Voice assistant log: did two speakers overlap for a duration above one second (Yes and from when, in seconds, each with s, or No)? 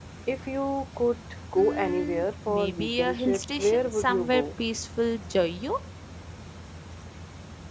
Yes, from 1.5 s